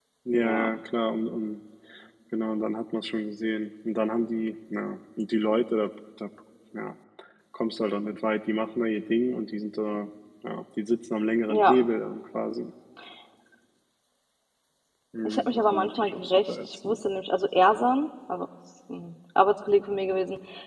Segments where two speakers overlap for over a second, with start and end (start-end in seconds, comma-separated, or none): 15.2-17.0